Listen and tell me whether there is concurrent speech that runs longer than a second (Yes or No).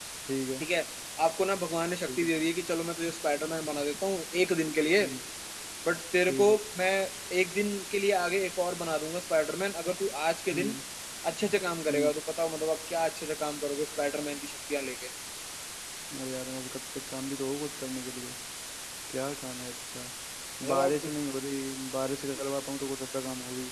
No